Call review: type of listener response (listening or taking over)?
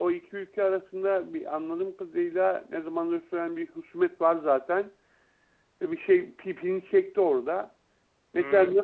listening